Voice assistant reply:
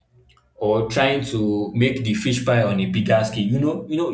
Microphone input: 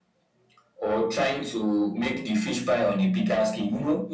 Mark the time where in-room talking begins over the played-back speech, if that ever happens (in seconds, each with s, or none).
none